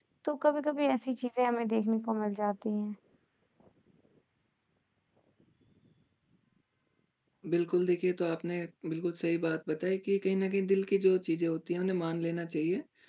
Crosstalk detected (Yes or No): No